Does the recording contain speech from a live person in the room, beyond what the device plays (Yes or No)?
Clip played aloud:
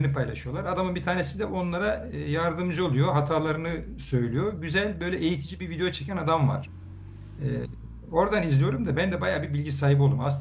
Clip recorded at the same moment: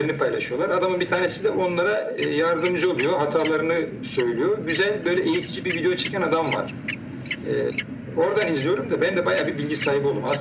No